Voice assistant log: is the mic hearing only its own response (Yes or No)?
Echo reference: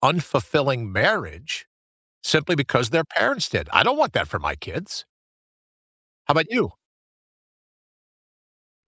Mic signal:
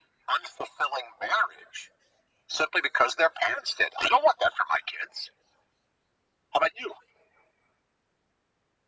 Yes